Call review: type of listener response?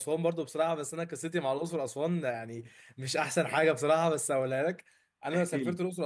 listening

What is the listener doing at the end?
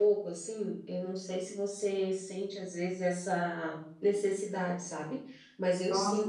taking over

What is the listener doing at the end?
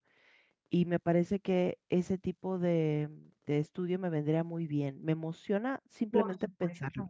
taking over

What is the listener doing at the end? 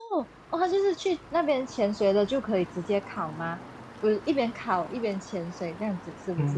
taking over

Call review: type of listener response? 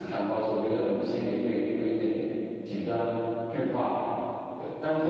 taking over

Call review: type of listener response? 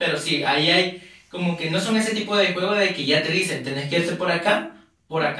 taking over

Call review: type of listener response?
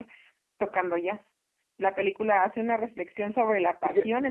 listening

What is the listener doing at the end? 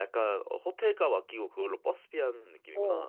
taking over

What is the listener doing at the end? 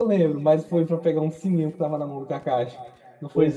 taking over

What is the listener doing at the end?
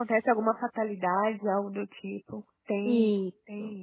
taking over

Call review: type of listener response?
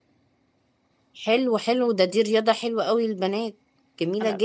taking over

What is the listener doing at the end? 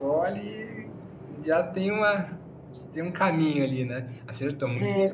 taking over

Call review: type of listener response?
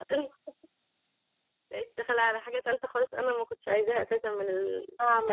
taking over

